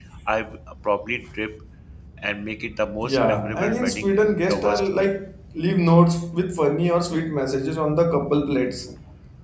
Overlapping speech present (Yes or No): Yes